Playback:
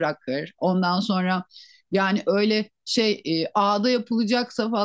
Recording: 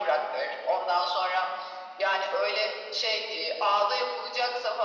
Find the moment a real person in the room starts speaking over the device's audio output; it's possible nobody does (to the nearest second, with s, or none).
none